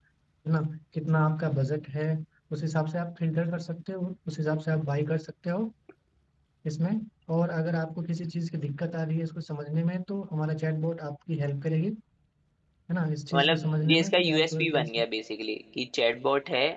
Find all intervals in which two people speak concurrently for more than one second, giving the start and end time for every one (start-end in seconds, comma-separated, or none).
13.3-15.0